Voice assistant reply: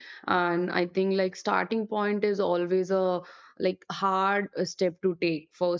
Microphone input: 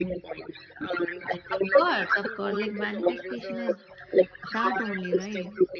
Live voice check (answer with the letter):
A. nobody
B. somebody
B